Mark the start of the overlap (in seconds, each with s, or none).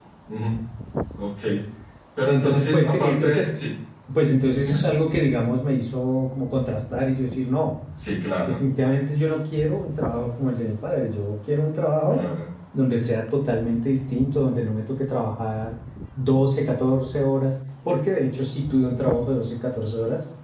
2.3 s